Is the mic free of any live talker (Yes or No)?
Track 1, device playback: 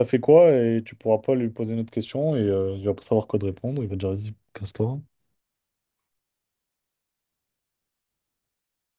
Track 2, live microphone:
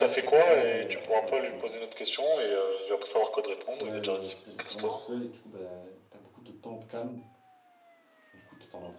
No